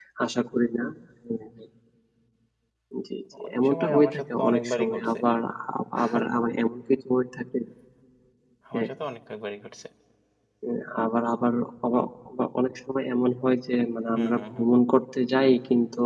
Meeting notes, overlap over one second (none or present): present